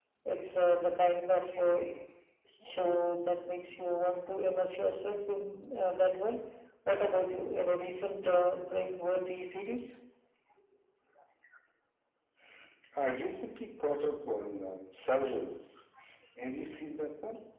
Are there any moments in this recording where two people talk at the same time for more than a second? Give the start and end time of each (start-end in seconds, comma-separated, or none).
none